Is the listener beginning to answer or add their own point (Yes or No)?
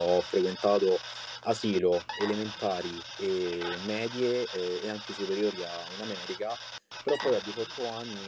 No